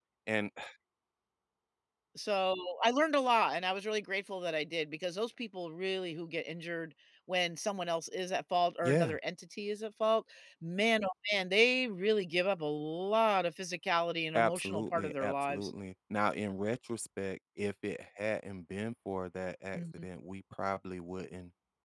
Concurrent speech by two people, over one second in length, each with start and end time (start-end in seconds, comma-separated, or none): 14.3-15.7